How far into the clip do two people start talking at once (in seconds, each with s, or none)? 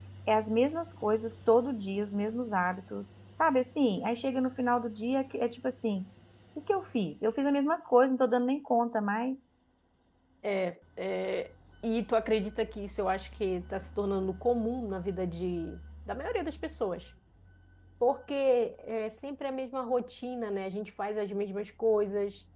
none